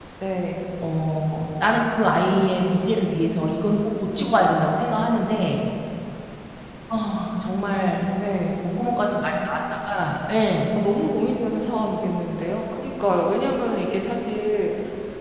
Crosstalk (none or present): none